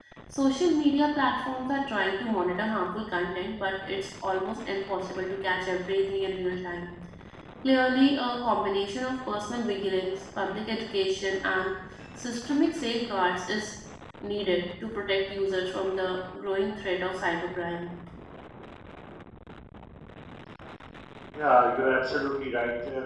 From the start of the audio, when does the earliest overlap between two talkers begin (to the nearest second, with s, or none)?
none